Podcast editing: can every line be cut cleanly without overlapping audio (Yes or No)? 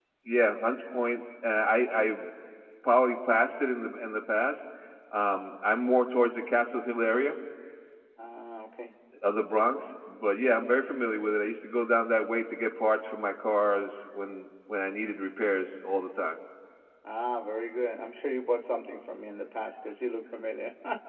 Yes